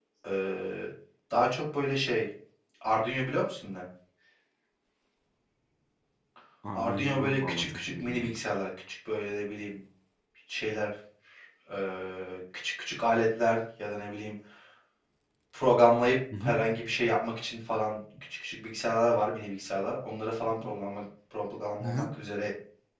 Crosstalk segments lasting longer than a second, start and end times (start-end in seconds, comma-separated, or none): 6.7-8.4